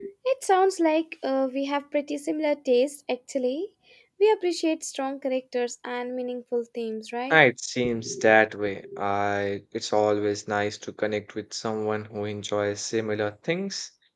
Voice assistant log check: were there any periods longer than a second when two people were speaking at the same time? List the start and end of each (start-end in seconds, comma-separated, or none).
none